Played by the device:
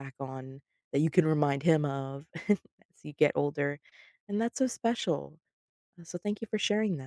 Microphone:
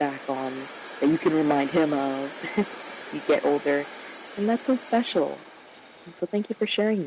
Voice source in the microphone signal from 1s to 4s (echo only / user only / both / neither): echo only